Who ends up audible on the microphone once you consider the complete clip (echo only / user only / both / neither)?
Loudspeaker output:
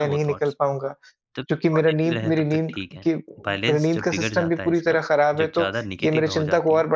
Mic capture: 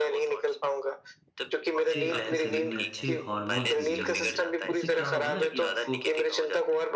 both